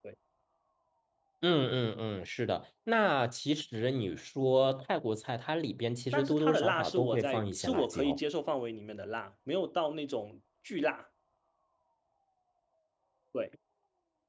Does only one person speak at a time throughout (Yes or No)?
No